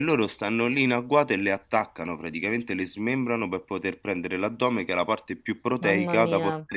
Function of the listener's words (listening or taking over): listening